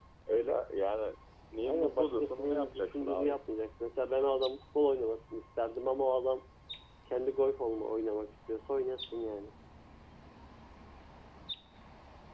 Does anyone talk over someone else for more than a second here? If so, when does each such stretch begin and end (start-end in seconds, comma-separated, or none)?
1.6-3.4